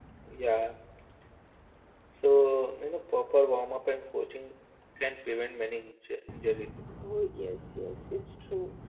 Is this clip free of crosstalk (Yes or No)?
Yes